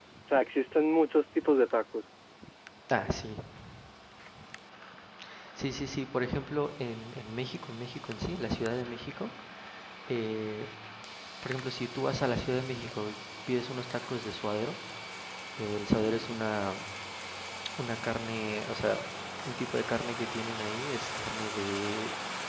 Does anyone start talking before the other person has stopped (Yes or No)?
No